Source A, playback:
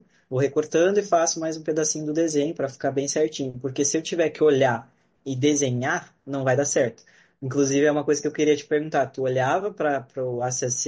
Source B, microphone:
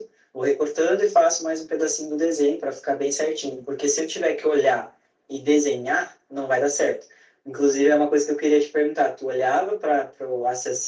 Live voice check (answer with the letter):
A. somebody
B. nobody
B